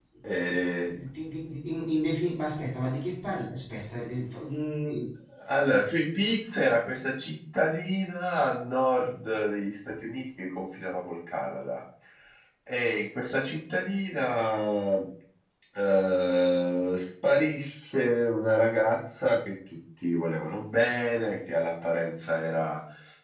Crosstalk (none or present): none